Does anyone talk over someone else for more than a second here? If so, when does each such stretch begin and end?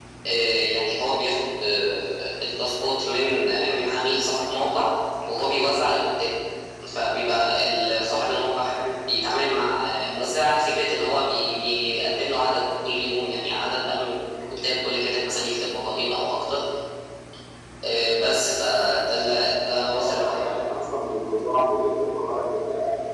none

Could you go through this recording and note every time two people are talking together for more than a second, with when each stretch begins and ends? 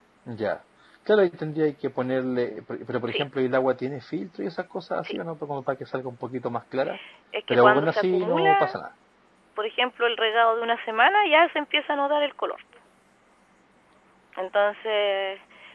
7.5-8.8

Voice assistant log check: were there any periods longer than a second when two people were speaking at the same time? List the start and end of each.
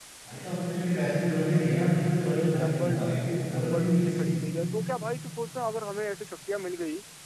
2.3-4.4

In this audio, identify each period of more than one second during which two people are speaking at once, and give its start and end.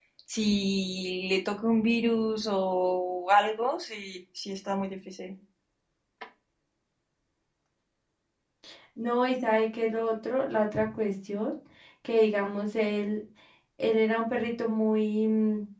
none

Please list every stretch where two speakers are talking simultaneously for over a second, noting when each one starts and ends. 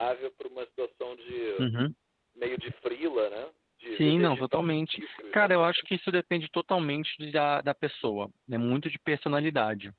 3.9-5.5

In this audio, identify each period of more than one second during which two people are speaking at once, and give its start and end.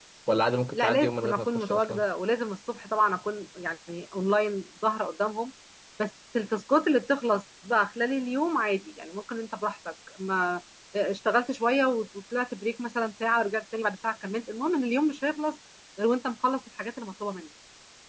0.7-2.0

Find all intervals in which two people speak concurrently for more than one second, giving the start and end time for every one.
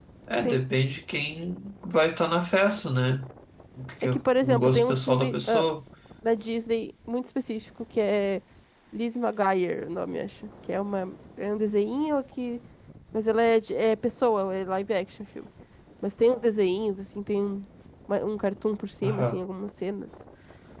4.0-5.7

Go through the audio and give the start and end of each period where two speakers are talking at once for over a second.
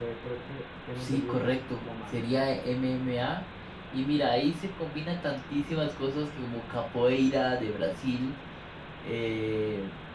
1.0-2.3

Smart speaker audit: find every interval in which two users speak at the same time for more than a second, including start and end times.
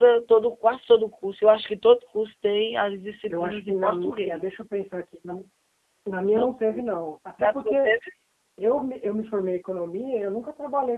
3.3-4.6

